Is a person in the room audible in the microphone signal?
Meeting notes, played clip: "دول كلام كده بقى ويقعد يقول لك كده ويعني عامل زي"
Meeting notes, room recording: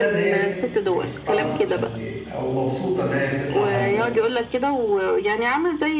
Yes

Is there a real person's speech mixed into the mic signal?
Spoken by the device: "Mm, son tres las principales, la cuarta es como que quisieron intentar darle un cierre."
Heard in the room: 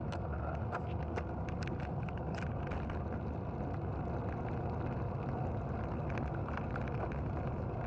No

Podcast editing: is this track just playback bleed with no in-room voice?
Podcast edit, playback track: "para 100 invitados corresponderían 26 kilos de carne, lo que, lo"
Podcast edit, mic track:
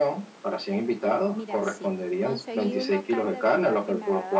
No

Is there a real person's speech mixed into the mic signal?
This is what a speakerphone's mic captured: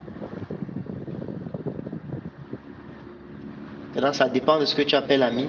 Yes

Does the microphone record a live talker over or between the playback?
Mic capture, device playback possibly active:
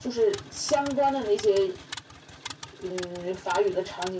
No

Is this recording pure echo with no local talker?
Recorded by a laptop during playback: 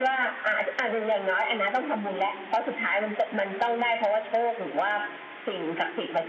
Yes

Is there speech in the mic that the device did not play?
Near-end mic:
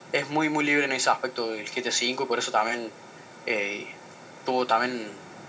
No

